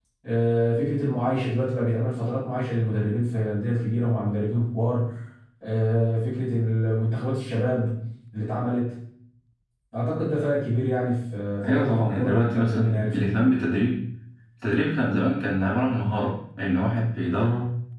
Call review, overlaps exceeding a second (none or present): present